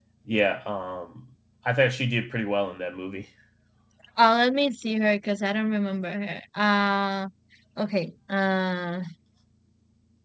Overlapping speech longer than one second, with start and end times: none

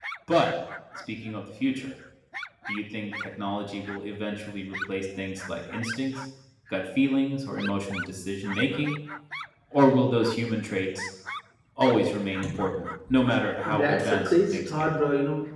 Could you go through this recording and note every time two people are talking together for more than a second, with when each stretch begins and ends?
13.6-14.9

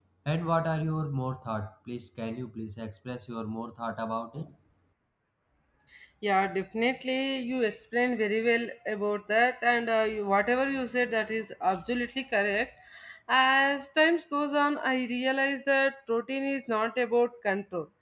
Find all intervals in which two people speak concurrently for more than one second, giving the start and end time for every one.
none

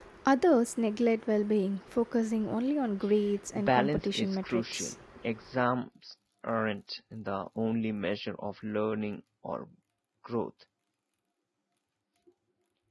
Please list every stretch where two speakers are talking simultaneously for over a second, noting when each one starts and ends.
3.6-4.9

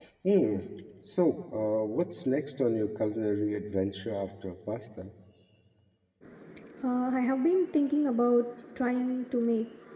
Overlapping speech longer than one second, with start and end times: none

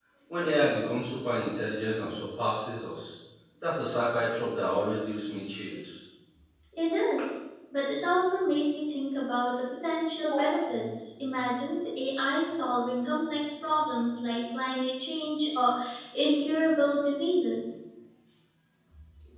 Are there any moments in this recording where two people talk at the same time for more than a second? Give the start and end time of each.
none

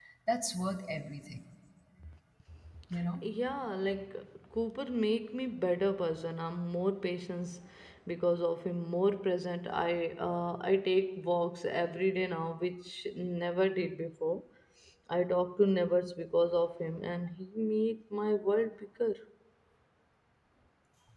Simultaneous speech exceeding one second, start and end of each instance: none

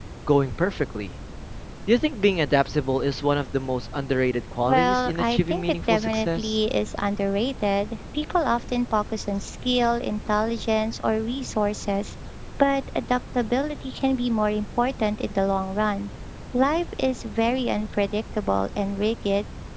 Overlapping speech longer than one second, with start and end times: 4.6-6.6

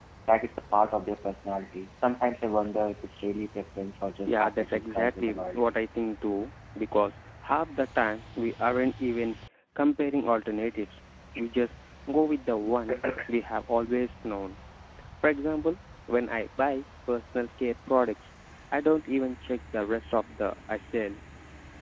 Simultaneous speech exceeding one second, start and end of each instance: 4.3-5.6

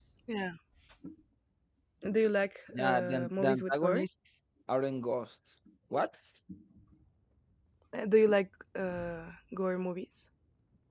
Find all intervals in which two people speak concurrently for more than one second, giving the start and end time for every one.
2.7-4.0

